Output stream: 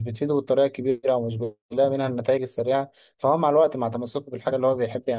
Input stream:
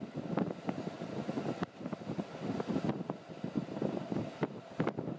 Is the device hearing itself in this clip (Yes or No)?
No